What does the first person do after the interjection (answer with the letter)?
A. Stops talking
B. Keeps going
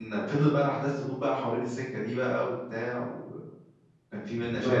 A